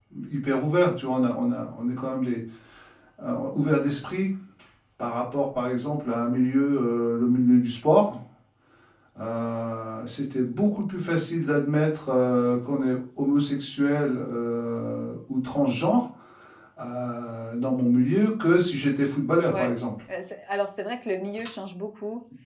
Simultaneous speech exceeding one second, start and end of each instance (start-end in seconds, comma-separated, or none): none